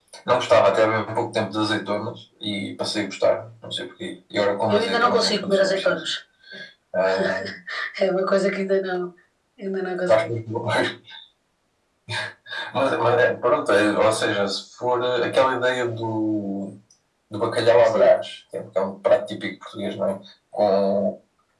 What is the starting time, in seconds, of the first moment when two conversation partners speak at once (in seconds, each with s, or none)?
4.7 s